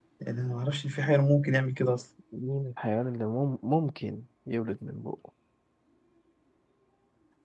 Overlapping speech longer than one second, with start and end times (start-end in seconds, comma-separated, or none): none